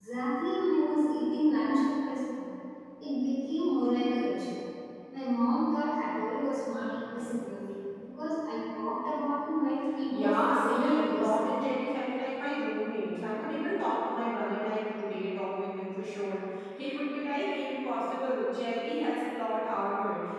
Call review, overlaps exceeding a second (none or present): present